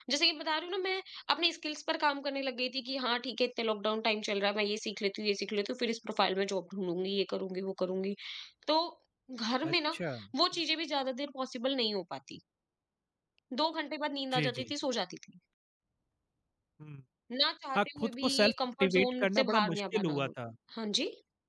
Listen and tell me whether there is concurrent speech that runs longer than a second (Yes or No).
Yes